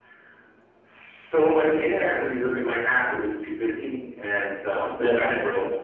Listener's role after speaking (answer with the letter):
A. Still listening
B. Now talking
A